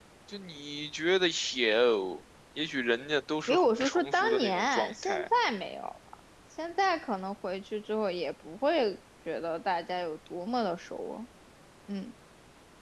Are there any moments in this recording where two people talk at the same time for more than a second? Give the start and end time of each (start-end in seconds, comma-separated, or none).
3.5-5.3